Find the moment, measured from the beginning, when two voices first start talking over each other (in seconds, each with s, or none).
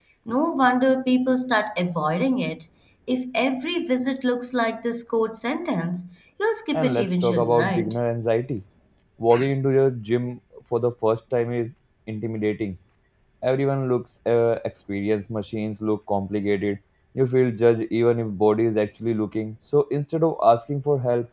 6.7 s